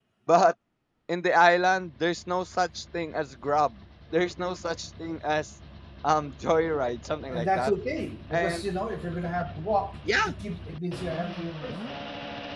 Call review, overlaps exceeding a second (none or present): none